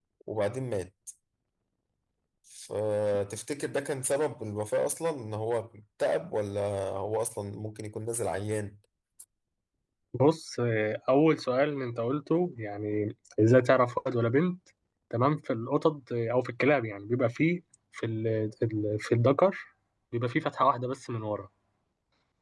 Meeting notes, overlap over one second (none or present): none